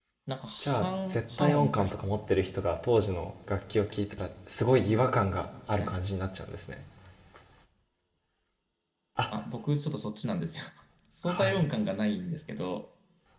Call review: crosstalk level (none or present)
present